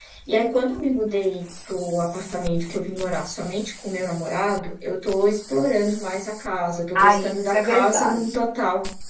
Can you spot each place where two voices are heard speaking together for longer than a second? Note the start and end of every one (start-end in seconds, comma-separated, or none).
7.0-8.2